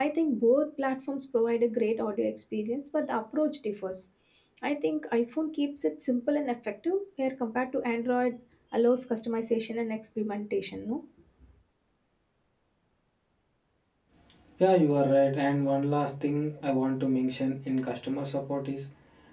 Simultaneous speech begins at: none

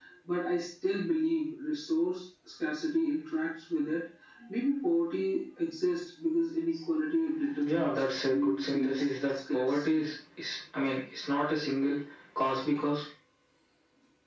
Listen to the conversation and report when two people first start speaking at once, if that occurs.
7.6 s

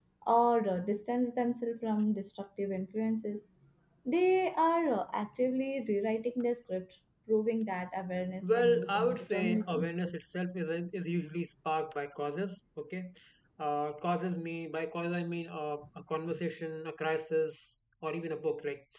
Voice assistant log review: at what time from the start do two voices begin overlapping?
8.4 s

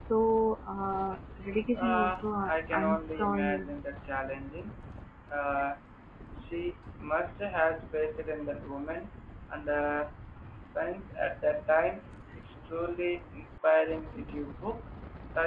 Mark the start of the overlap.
1.8 s

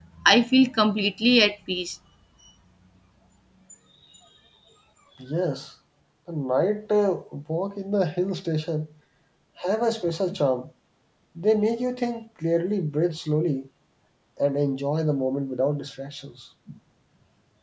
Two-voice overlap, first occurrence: none

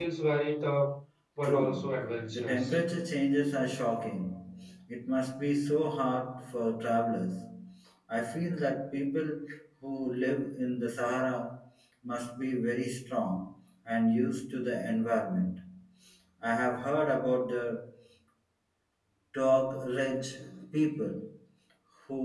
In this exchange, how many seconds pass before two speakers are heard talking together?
1.4 s

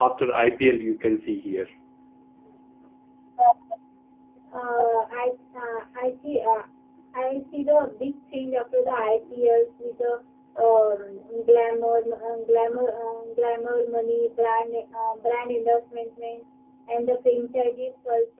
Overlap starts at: none

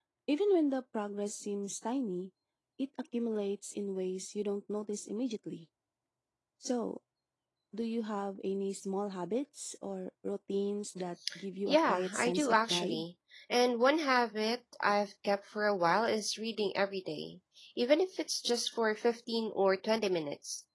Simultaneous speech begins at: 11.7 s

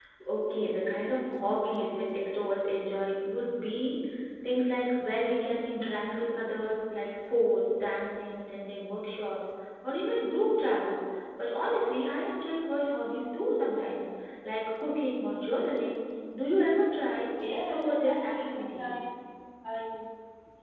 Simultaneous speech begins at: 17.3 s

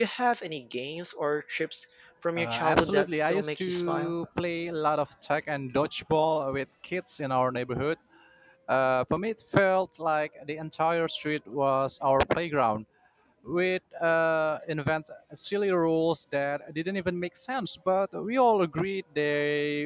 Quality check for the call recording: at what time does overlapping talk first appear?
2.4 s

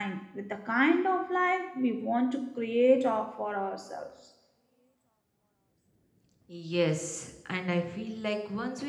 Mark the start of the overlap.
none

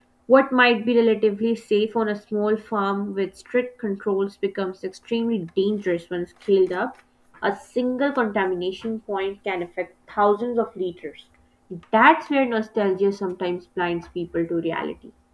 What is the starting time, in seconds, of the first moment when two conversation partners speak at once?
none

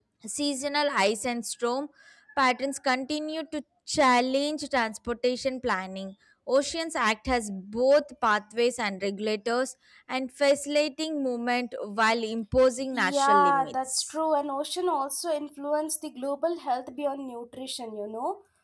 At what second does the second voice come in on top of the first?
12.9 s

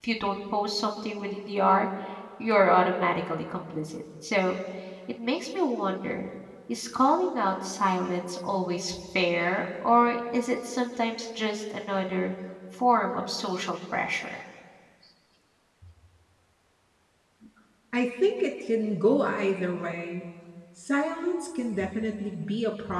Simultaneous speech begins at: none

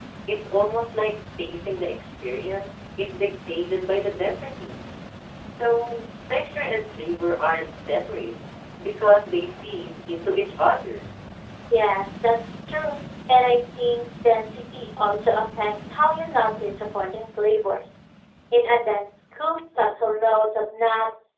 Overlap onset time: none

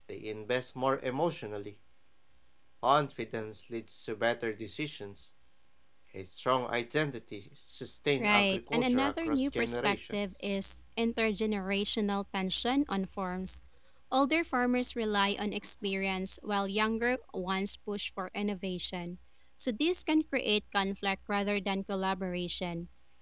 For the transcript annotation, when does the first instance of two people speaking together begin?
8.2 s

